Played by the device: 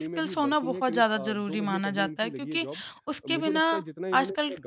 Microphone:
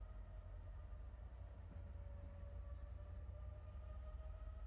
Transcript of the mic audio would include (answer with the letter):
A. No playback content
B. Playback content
A